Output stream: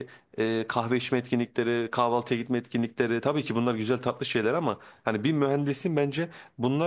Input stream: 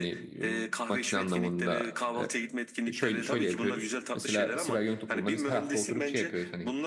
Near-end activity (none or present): present